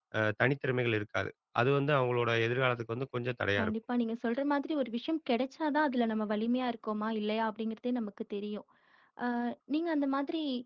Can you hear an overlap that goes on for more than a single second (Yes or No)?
No